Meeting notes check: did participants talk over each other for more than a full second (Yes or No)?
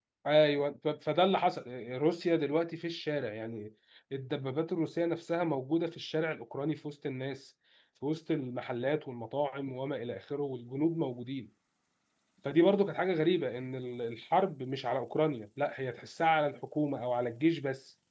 No